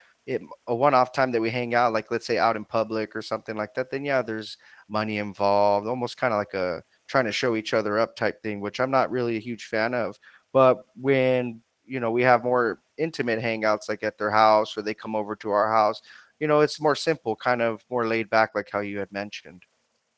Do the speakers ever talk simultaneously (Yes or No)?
No